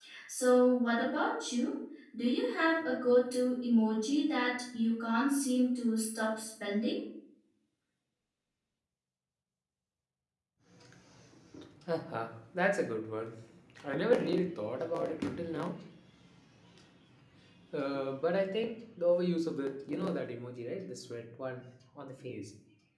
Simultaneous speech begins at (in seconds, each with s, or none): none